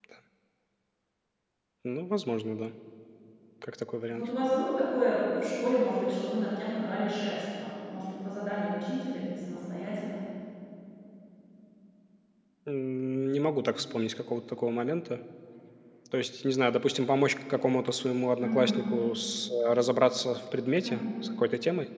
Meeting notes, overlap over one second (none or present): none